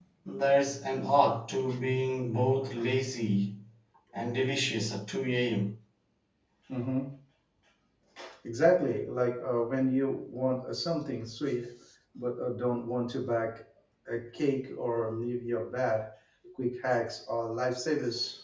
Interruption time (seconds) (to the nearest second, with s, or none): none